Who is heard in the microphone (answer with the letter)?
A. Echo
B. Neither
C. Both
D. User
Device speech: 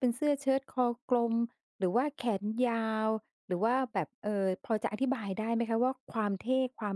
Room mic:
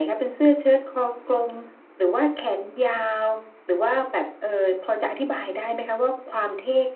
A